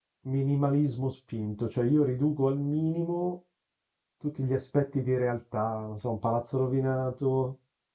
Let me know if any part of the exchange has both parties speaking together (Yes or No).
No